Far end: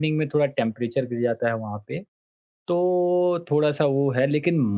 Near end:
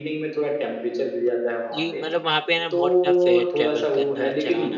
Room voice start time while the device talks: 1.7 s

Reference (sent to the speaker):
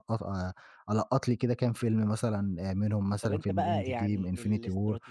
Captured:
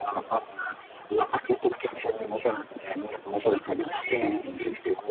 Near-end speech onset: none

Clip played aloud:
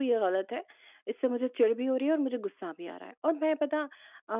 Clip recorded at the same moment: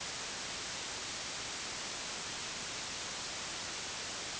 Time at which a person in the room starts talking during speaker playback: none

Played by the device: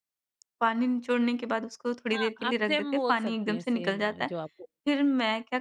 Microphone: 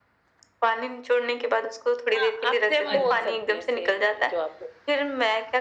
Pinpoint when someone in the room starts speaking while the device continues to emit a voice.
2.8 s

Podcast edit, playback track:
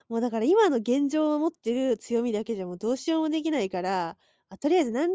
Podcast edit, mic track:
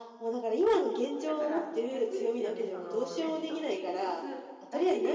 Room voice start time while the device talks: 1.2 s

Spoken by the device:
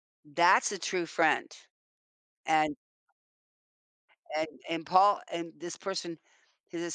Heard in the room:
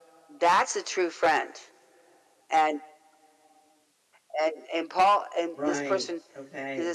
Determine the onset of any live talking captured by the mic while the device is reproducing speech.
5.5 s

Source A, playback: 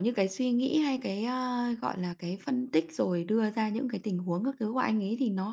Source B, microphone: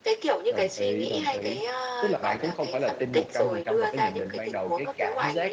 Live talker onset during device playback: 0.5 s

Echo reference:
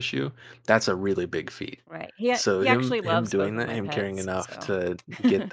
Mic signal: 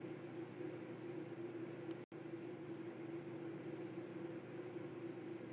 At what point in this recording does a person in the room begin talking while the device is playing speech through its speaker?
none

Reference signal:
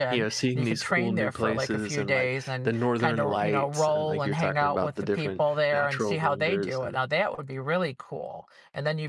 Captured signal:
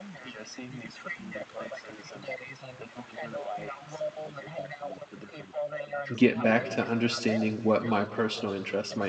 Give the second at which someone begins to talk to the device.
6.1 s

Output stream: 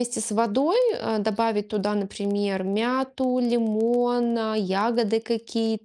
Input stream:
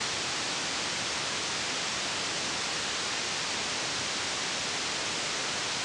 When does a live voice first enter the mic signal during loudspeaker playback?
none

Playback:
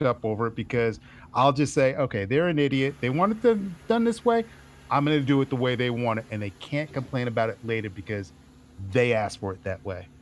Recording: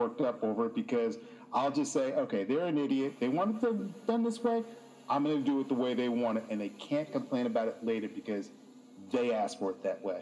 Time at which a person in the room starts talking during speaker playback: none

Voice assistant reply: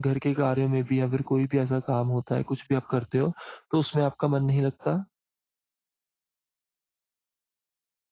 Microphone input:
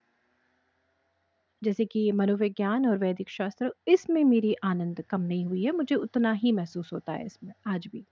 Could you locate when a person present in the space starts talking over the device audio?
1.6 s

